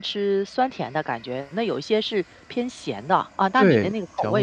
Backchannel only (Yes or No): No